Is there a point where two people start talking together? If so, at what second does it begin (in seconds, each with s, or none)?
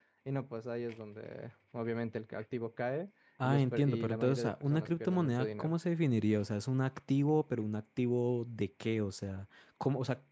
3.4 s